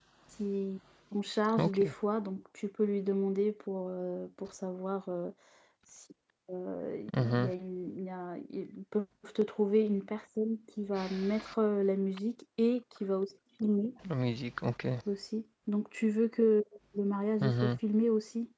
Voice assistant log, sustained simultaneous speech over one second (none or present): none